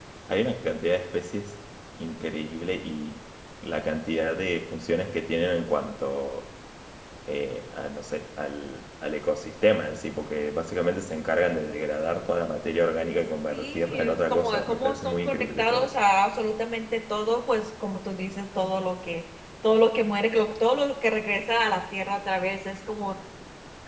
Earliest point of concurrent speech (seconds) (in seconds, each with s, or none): 13.5 s